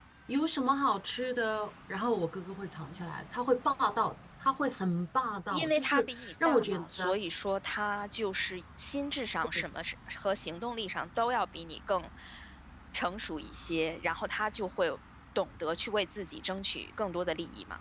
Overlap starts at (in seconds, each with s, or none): 5.5 s